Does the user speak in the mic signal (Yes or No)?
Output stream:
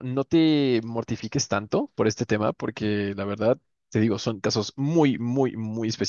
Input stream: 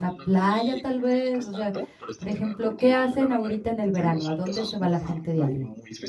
Yes